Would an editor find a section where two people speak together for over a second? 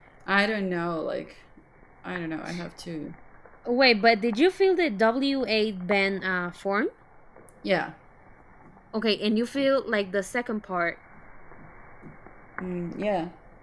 No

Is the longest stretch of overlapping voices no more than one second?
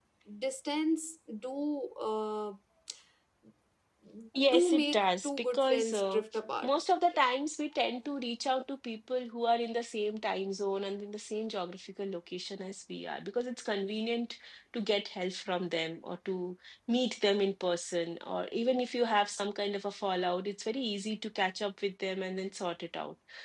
No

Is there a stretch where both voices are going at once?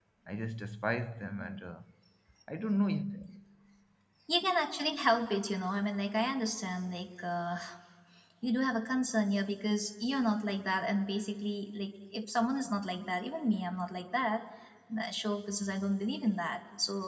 No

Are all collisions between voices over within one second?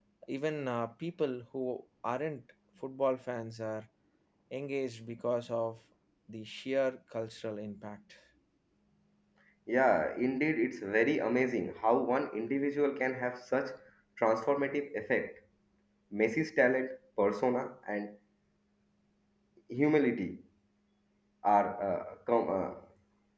Yes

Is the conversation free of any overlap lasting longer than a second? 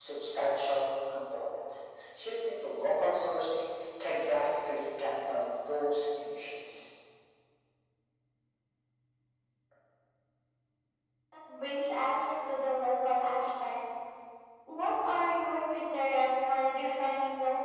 Yes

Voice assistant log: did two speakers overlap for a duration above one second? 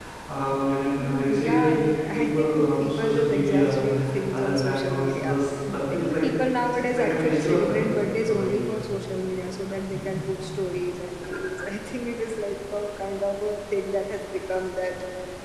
Yes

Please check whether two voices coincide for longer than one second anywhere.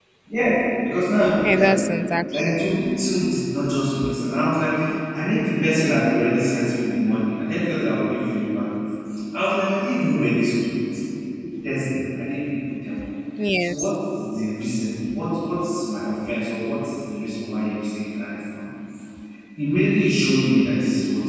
No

